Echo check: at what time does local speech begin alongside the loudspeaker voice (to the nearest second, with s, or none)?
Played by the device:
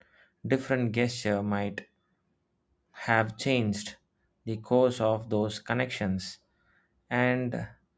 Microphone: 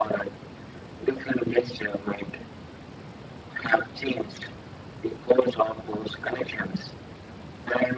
none